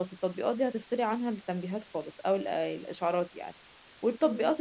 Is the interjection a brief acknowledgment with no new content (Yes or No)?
Yes